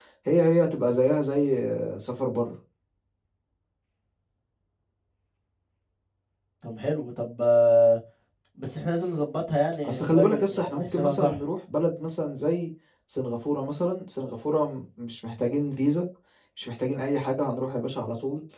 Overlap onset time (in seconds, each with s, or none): 9.8 s